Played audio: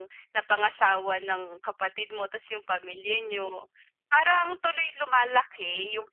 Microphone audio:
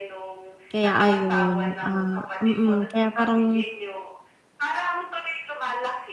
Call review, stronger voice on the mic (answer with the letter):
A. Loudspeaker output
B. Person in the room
B